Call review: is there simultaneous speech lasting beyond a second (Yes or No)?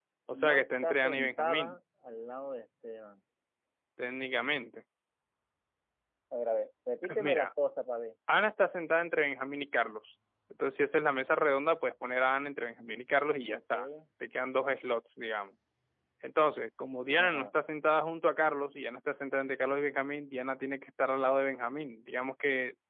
Yes